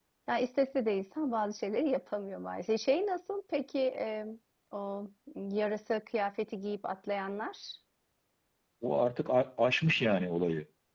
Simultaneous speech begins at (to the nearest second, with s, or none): none